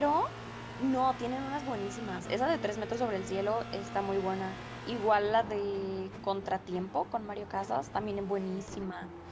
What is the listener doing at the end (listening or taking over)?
listening